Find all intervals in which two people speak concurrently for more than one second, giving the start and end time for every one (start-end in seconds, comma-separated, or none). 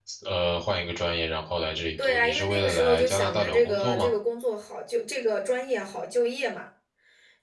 2.0-4.1